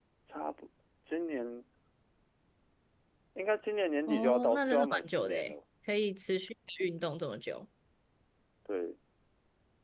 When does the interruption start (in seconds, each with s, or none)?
4.1 s